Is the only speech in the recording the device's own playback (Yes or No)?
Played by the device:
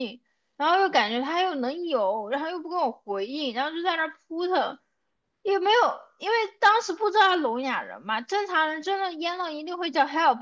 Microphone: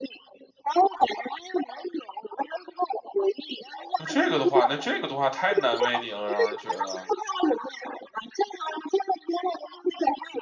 No